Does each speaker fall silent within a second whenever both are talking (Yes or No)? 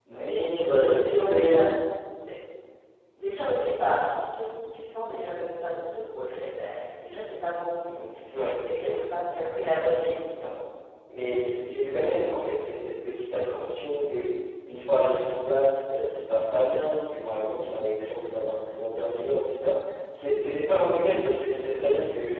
No